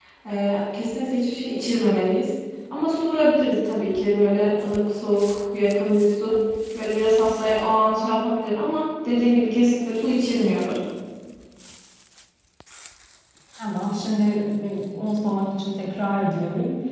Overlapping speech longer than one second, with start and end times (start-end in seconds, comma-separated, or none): none